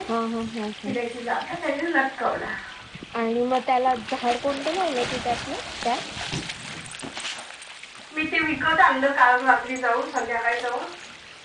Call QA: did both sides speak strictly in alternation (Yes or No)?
Yes